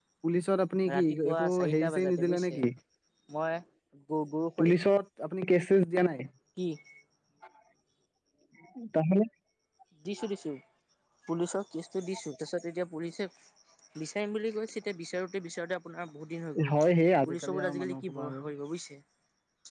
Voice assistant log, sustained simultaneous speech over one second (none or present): present